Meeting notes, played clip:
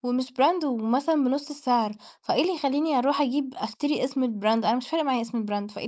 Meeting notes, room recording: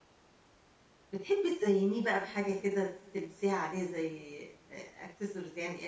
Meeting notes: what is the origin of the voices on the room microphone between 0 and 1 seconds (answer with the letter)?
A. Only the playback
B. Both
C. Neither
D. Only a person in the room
C